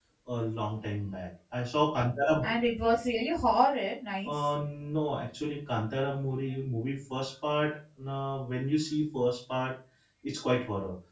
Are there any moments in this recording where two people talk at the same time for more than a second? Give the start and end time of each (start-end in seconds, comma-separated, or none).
none